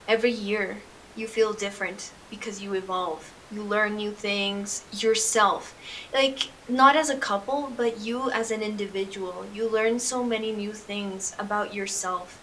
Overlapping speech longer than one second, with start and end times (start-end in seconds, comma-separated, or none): none